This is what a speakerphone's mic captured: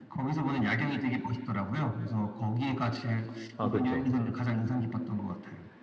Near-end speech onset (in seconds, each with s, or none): 3.6 s